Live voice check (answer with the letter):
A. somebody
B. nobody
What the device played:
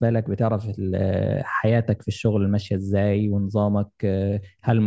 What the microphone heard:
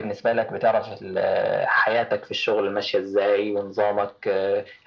B